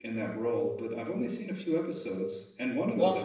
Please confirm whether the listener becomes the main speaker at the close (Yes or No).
No